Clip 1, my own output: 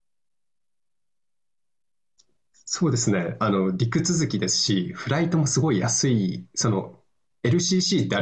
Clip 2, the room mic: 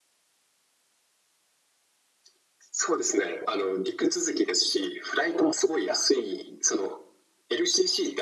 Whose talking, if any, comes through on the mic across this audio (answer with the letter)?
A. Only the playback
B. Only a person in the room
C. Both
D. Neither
A